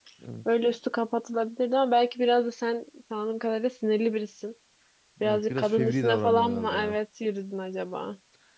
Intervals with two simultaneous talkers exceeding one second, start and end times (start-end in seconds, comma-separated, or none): 5.2-7.0